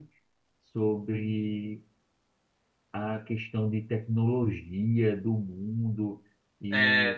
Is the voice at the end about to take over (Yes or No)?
No